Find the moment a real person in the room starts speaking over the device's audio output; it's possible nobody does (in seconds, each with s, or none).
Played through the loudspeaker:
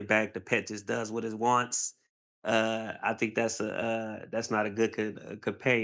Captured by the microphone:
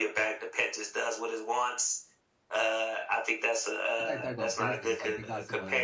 4.0 s